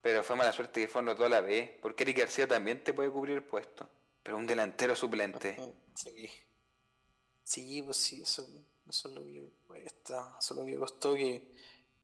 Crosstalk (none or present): none